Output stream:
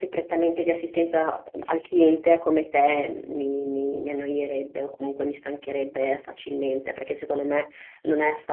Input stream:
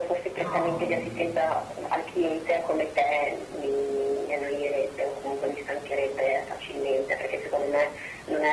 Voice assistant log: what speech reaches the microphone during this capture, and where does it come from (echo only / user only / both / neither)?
both